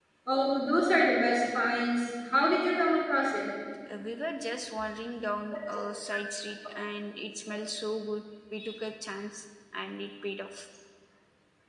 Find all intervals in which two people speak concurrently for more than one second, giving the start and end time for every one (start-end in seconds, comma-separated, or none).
none